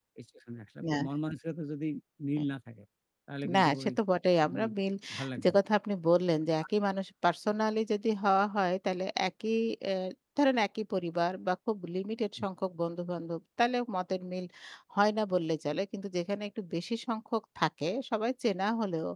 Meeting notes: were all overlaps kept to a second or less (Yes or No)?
Yes